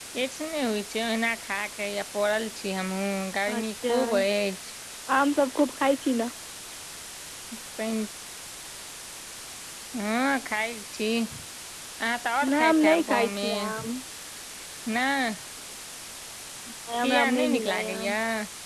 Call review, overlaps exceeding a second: present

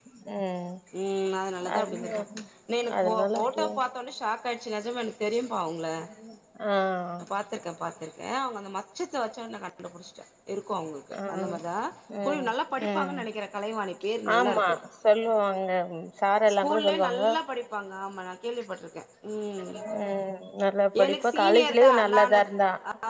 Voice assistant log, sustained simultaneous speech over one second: present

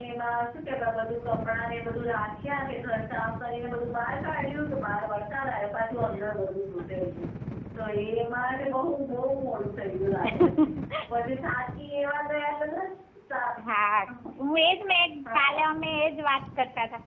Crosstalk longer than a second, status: none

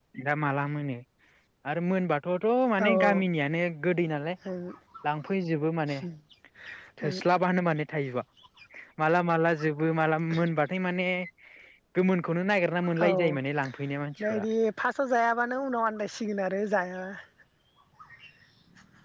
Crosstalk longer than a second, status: none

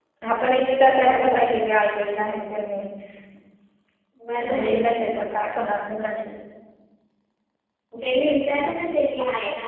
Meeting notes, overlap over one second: none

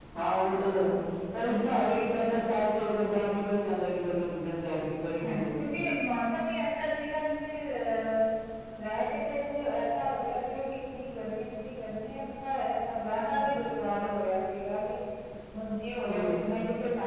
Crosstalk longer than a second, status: none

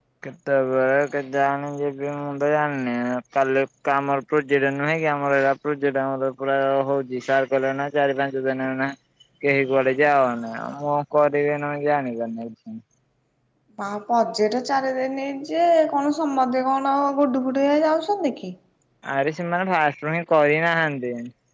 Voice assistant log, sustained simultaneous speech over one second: none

